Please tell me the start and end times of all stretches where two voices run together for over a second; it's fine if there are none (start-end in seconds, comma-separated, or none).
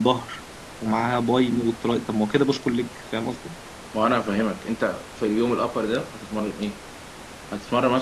none